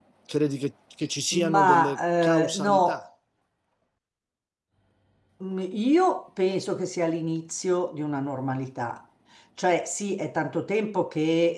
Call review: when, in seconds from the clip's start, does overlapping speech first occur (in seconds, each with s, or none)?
1.3 s